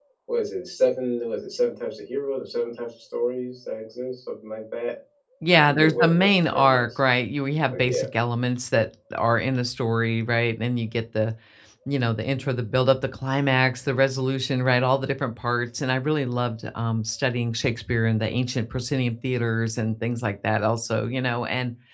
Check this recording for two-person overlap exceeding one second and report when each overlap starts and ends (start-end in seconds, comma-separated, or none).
5.5-7.0